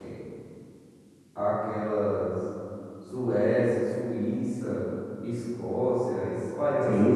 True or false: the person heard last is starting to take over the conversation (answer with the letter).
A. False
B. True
B